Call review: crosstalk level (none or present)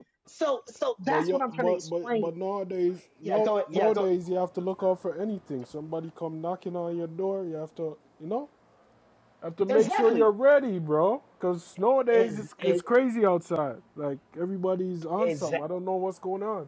present